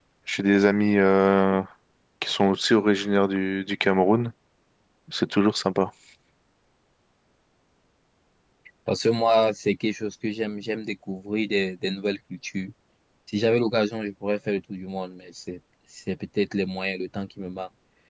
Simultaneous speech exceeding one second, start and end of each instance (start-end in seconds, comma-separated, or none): none